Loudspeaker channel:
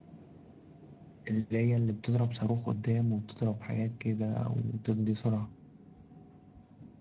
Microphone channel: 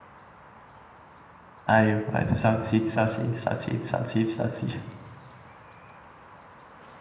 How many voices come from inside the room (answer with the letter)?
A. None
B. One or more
B